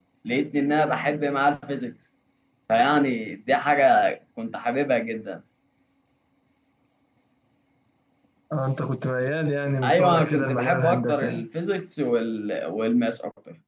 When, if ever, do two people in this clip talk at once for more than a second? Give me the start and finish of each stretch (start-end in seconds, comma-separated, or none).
9.8-11.5